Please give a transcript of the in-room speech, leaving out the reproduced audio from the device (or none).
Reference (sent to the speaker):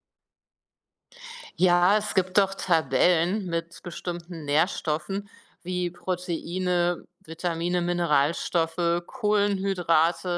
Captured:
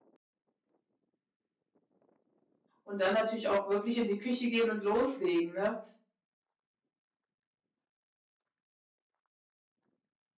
und dann natürlich auch wirklich in die Küche gehen und loslegen, ne?